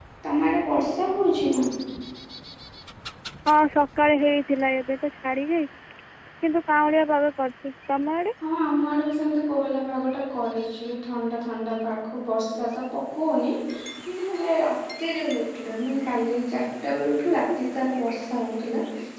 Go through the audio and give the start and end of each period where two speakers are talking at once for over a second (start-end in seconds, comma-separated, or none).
none